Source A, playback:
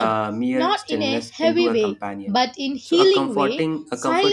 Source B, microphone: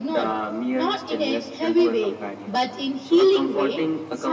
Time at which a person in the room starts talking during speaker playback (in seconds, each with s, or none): none